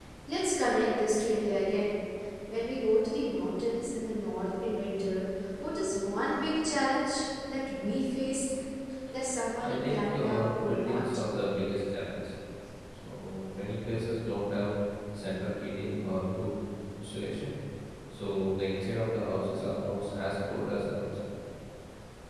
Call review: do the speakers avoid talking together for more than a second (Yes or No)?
No